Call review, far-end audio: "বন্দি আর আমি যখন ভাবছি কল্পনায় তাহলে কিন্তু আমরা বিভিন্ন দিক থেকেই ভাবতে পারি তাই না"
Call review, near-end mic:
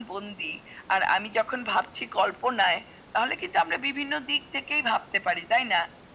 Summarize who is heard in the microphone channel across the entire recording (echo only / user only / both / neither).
echo only